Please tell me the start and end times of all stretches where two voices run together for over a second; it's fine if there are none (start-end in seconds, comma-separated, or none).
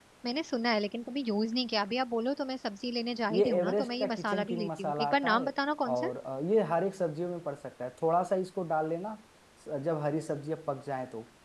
3.4-5.5